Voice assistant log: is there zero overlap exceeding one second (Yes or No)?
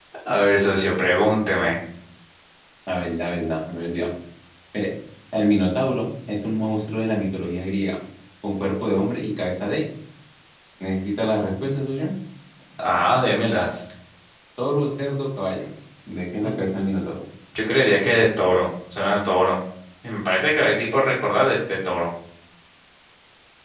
Yes